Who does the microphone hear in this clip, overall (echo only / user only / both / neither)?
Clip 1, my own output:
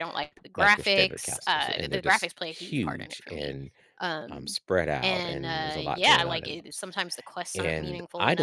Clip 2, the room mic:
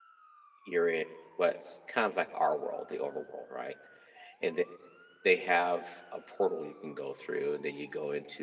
user only